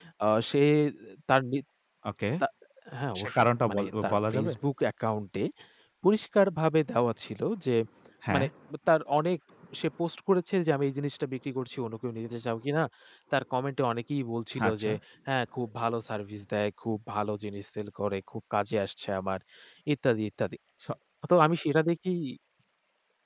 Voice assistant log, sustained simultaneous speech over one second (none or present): present